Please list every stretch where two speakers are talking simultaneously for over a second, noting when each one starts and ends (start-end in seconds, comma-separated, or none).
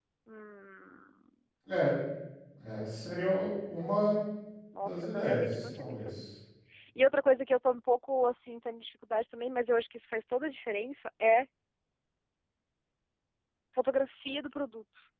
4.8-6.3